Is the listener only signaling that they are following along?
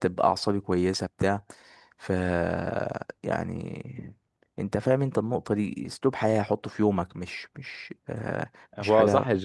No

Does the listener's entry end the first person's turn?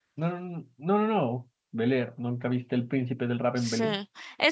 Yes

